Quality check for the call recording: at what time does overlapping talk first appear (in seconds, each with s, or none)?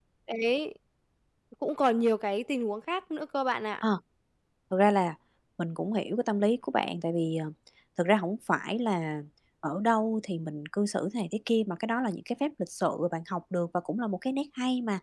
none